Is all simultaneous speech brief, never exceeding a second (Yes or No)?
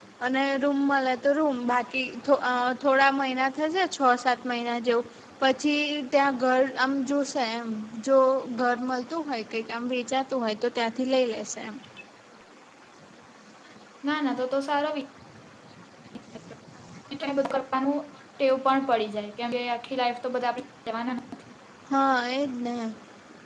Yes